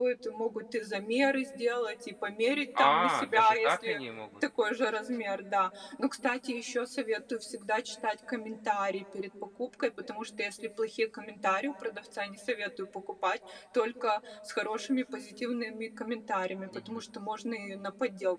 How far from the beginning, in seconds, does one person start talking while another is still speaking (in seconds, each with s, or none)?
2.8 s